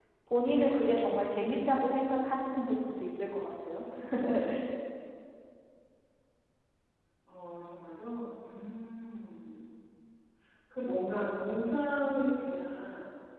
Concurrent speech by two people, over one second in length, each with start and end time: none

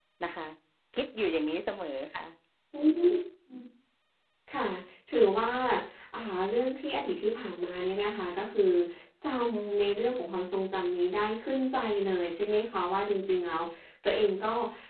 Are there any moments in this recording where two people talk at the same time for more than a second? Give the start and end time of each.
none

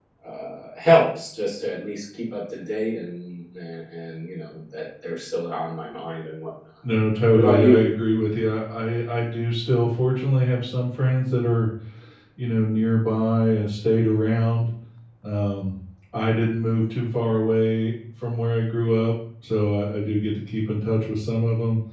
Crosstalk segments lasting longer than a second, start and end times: none

